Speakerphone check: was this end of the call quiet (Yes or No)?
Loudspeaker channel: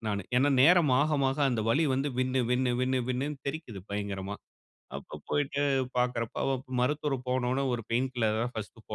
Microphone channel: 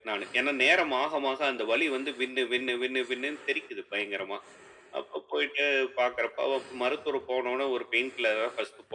Yes